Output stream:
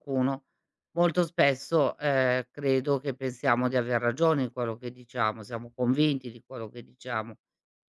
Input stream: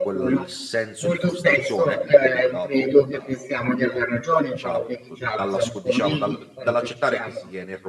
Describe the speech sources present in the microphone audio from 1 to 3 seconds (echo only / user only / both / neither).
both